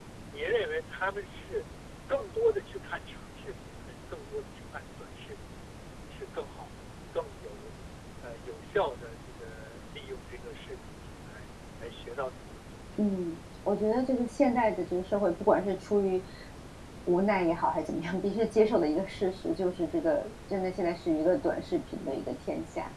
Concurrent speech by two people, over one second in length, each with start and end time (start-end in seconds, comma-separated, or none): none